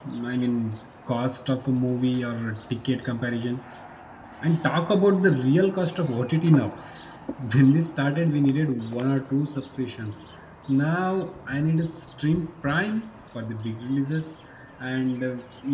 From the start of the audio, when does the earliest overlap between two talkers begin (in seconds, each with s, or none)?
none